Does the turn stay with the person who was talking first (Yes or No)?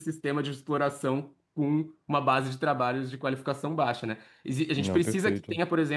Yes